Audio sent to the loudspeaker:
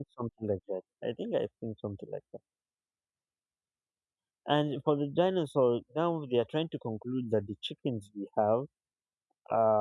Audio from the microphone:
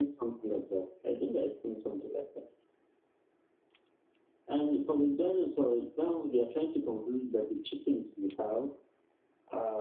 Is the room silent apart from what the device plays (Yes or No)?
Yes